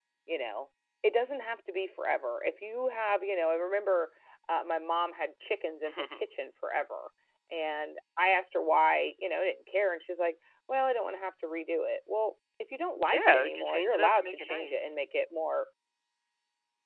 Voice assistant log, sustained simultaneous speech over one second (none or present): present